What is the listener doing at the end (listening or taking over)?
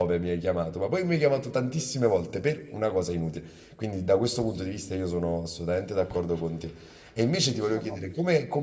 listening